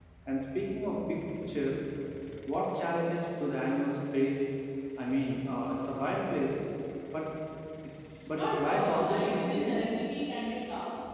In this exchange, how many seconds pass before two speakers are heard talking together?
8.3 s

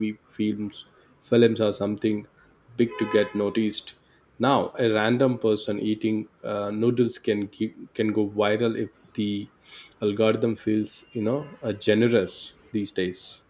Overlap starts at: none

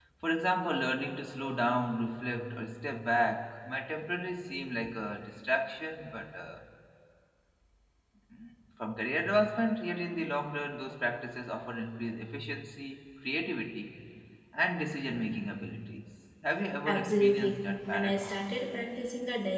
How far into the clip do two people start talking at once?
16.9 s

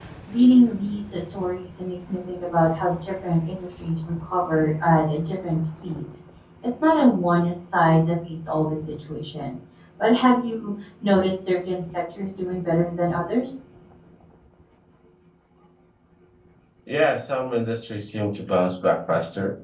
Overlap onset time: none

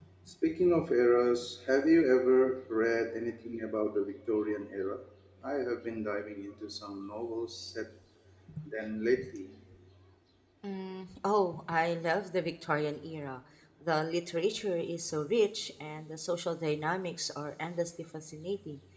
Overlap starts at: none

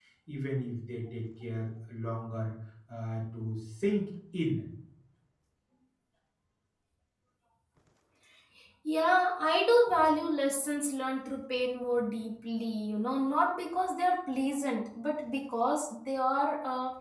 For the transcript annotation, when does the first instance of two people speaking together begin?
none

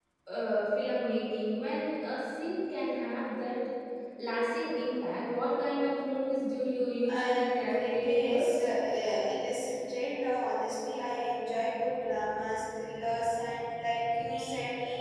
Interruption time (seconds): 7.0 s

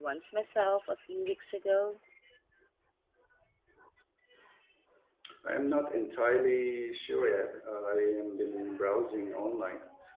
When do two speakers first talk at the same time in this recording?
none

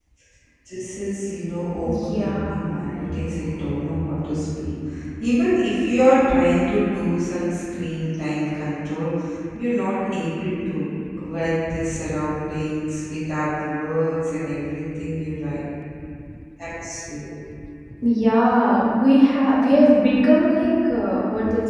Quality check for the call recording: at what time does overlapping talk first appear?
1.8 s

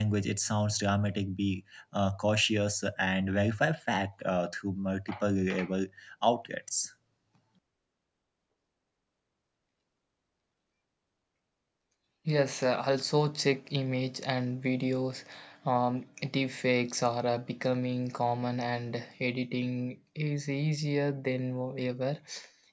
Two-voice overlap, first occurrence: none

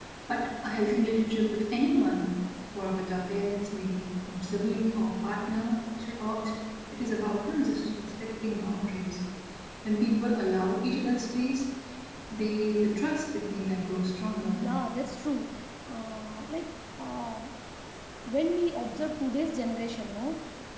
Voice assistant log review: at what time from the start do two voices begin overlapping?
none

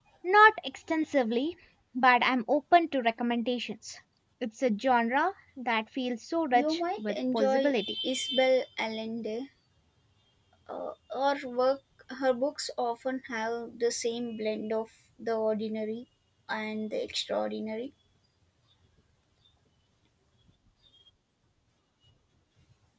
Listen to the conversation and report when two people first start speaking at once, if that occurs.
6.5 s

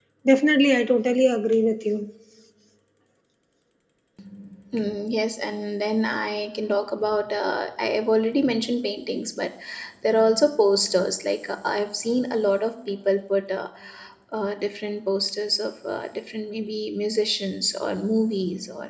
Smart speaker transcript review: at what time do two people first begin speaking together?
none

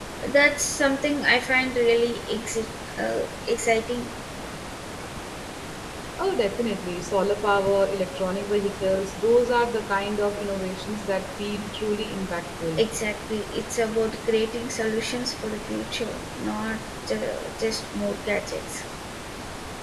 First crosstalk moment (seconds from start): none

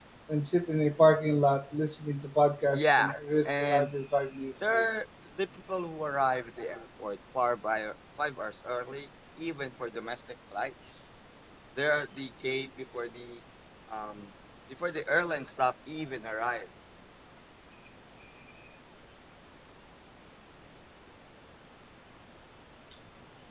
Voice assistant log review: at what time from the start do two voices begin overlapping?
2.7 s

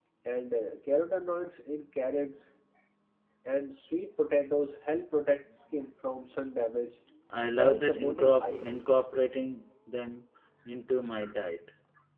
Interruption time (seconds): 7.5 s

